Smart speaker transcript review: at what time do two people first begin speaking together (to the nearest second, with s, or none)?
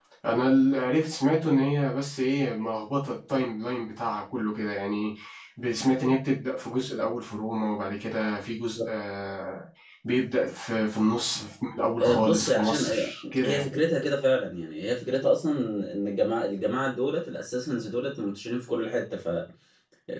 12 s